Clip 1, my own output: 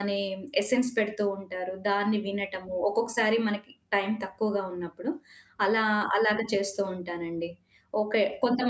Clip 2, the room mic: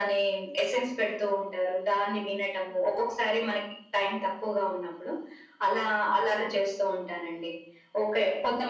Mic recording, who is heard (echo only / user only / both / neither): echo only